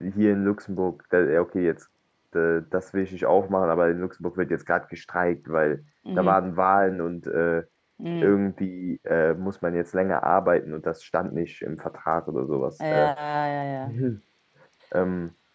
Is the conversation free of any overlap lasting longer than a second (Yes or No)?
Yes